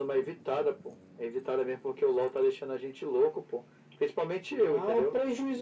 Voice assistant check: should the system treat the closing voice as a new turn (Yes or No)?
Yes